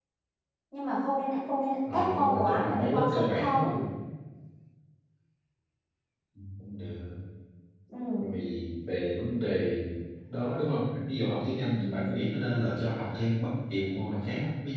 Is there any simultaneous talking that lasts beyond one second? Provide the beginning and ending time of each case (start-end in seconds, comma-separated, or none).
1.9-3.7